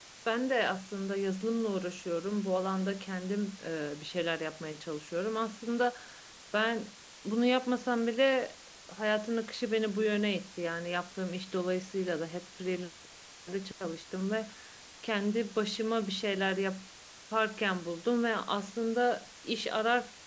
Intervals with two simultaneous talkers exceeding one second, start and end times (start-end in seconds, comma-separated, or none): none